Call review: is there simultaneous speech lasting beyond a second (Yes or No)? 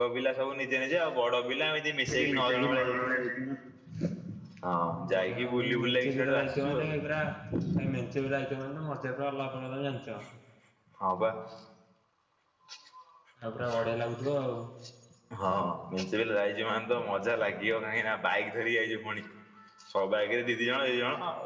Yes